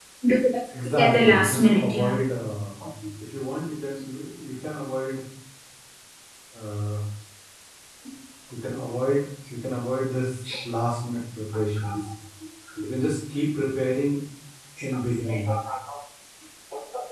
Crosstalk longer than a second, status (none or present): present